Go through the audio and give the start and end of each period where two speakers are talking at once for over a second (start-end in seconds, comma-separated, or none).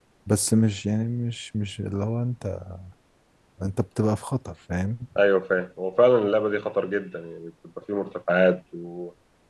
none